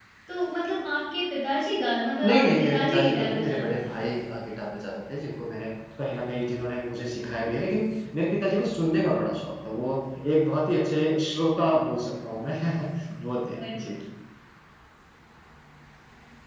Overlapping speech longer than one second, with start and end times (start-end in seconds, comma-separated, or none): 2.2-3.9